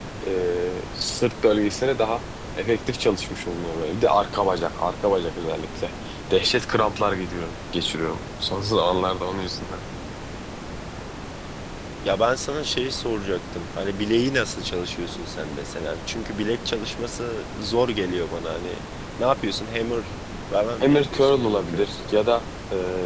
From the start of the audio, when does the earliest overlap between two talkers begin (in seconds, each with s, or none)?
20.8 s